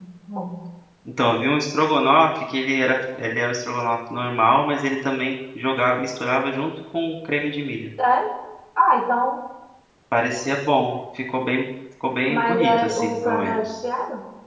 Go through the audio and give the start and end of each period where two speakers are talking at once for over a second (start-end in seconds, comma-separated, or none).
12.3-13.7